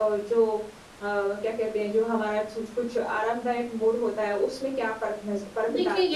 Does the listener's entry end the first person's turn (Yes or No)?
Yes